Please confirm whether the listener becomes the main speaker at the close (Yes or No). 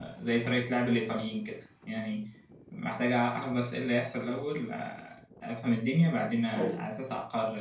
No